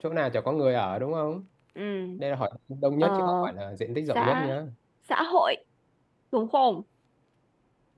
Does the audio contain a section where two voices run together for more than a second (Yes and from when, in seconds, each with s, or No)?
No